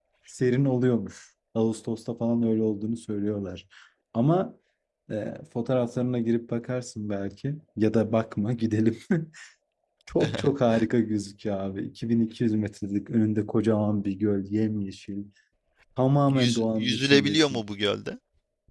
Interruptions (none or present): present